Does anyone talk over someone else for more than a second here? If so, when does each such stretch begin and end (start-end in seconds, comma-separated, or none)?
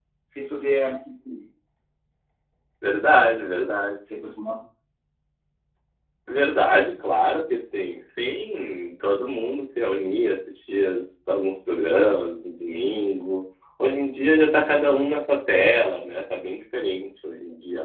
none